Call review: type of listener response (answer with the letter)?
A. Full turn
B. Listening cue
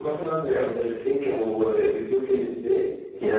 A